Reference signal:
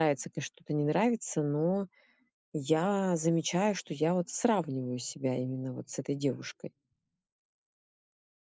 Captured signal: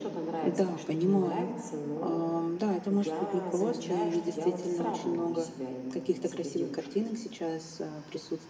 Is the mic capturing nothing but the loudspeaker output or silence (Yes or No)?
No